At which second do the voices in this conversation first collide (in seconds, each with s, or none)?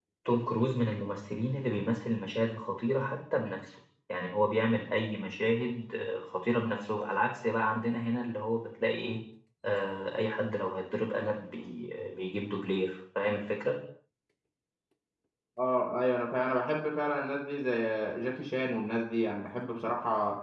none